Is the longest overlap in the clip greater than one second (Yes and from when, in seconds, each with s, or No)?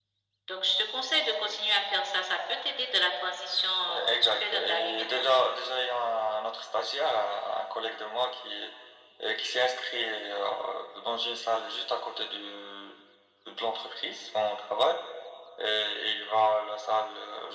Yes, from 3.9 s